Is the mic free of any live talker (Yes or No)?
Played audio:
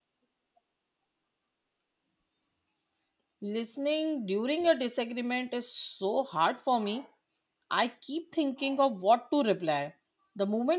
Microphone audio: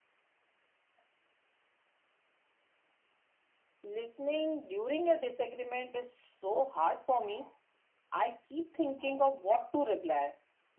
Yes